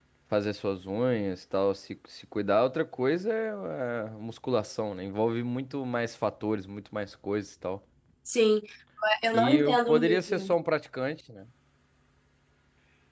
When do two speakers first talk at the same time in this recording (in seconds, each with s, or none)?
9.3 s